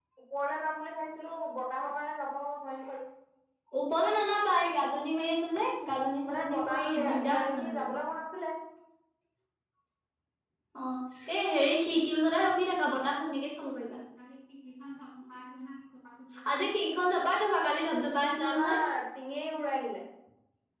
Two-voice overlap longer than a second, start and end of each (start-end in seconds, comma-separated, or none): 6.3-7.8